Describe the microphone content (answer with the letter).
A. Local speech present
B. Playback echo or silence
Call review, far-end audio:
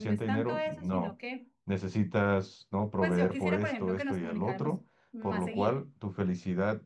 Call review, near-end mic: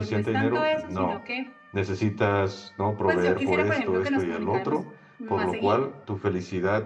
B